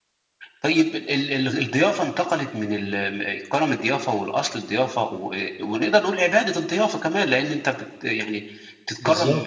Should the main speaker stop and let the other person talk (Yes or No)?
No